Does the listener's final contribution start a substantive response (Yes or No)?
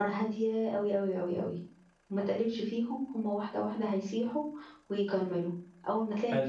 No